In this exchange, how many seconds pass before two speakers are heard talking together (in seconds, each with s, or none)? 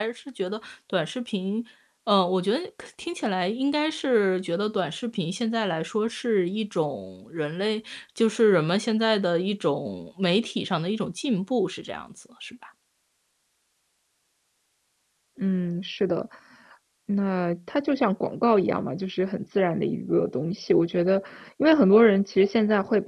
none